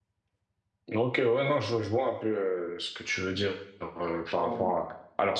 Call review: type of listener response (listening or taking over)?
listening